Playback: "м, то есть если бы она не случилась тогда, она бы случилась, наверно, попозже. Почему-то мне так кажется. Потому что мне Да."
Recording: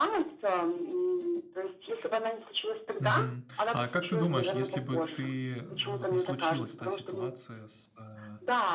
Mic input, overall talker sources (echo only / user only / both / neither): both